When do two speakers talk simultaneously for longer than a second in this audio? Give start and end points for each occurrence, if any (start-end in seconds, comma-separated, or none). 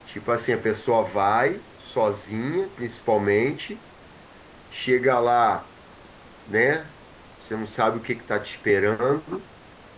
none